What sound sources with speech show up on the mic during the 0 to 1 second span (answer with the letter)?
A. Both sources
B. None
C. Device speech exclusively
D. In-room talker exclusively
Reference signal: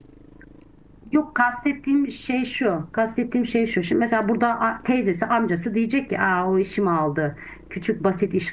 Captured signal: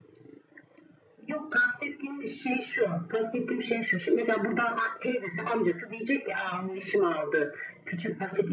B